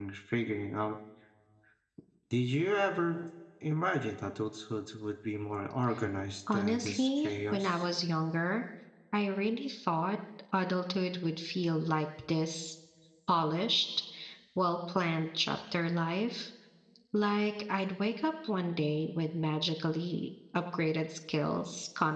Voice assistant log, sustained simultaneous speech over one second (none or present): present